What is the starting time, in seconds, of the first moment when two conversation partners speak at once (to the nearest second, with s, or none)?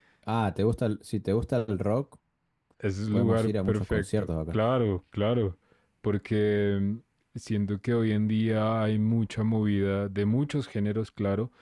3 s